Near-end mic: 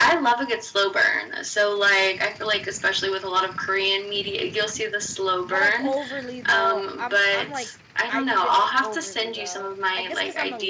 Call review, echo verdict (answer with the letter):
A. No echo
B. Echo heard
B